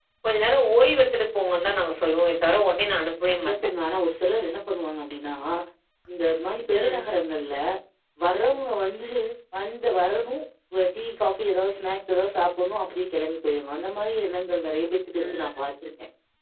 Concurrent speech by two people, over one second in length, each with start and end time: none

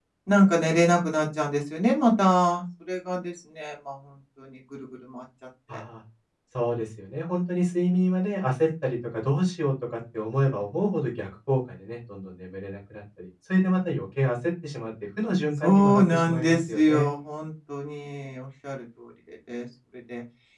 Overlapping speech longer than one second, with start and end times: 15.6-17.1

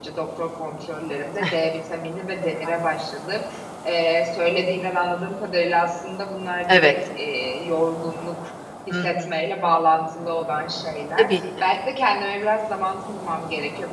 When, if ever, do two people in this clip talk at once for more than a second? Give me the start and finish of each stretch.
none

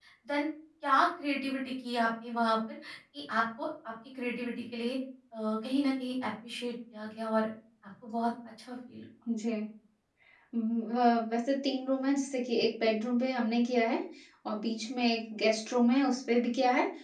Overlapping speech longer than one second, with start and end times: none

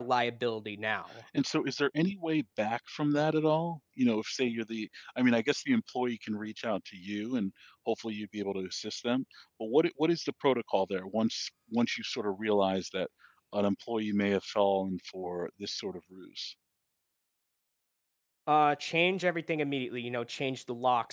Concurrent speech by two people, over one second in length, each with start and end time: none

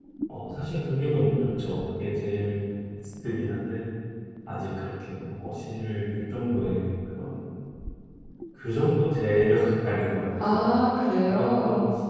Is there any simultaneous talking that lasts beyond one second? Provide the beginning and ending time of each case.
none

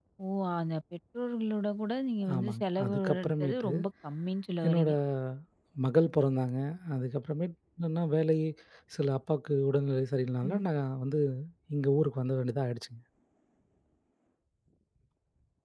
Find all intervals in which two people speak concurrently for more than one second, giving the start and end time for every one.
2.4-3.7

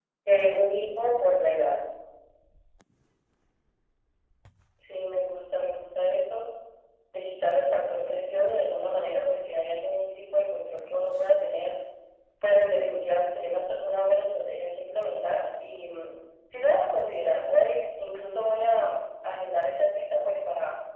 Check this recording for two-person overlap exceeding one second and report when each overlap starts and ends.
none

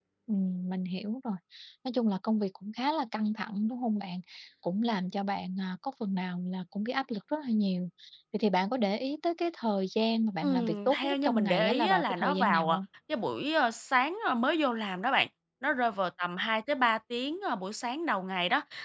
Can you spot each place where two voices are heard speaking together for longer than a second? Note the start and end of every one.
10.4-12.8

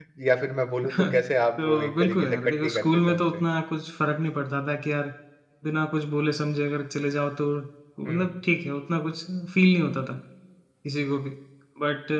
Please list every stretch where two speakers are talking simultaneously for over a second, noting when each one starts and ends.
1.6-3.2

